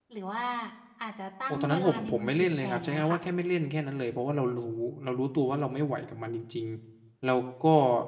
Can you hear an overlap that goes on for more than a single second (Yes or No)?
Yes